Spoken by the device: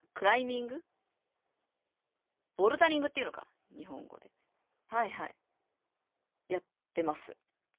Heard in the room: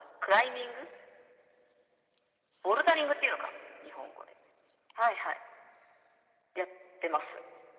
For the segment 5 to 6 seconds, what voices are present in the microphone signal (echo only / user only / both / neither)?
echo only